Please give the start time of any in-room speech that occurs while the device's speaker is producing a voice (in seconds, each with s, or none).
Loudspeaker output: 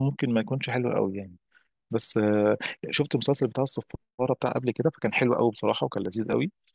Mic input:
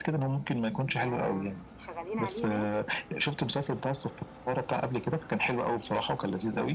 0.7 s